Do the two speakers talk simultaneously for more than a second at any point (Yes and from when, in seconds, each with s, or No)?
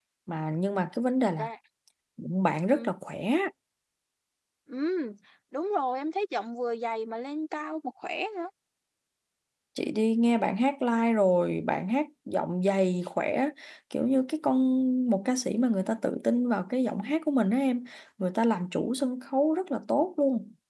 No